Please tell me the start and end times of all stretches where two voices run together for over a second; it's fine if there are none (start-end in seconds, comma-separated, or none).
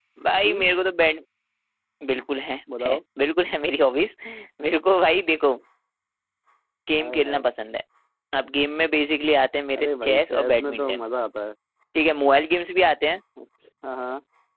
9.8-11.0